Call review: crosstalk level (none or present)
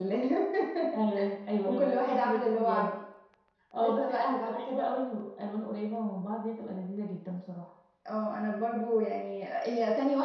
present